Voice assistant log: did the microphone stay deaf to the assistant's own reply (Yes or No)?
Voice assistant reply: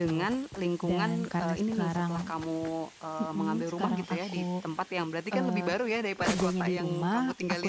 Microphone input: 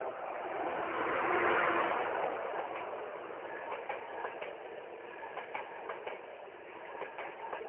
Yes